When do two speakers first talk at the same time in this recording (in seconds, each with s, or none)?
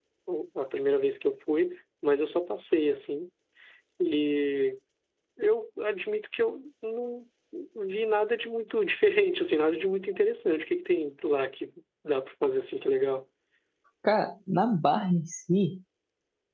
none